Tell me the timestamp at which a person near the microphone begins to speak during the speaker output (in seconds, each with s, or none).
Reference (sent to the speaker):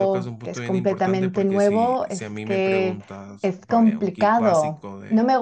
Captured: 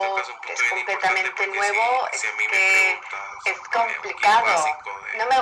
none